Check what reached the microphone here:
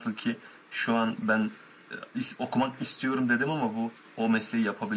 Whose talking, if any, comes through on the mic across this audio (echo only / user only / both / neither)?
echo only